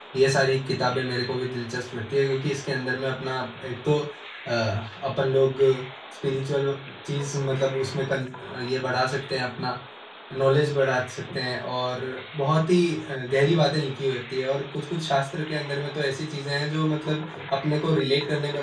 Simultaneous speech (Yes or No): No